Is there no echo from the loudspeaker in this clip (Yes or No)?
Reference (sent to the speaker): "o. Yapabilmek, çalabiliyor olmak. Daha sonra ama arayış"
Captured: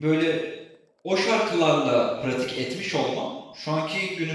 Yes